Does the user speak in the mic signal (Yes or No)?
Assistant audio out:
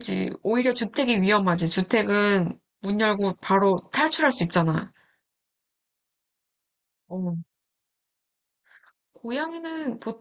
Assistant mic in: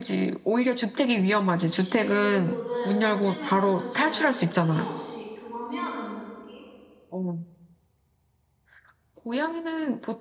Yes